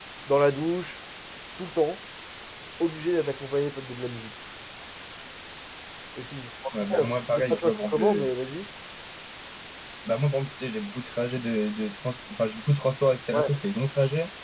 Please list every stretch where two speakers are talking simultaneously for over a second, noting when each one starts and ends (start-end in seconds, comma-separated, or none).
6.9-8.3